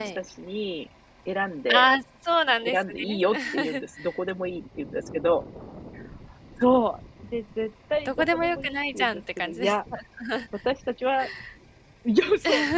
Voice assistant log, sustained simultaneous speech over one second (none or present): present